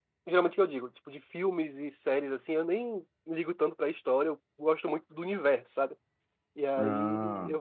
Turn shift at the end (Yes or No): No